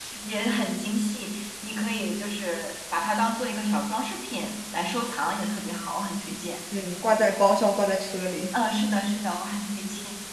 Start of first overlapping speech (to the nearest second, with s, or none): none